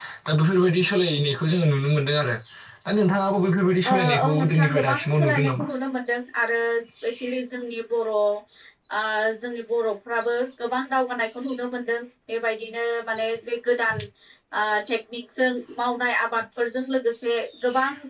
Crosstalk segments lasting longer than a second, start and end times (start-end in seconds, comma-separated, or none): 3.9-5.7